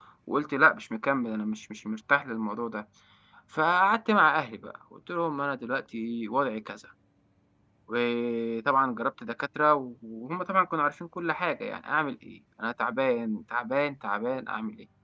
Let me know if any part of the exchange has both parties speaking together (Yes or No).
No